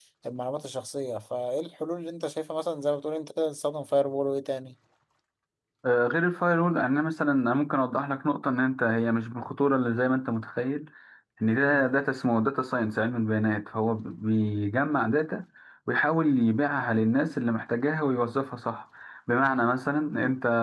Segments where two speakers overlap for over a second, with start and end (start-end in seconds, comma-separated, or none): none